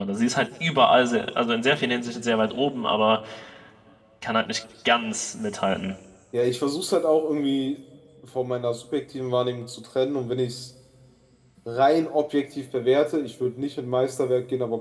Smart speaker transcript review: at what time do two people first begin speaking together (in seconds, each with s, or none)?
none